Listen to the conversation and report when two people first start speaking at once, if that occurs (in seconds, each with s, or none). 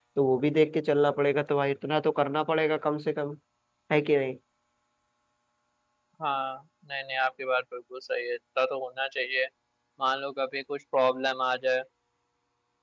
none